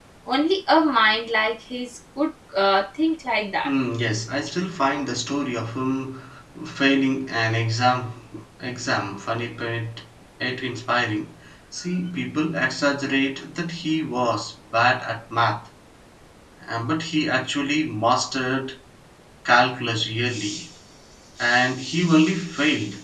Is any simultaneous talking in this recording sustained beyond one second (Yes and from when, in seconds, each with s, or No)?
No